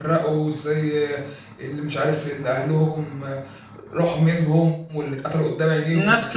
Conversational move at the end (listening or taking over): taking over